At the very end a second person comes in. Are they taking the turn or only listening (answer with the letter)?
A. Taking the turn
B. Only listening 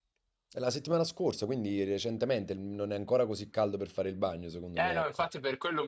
A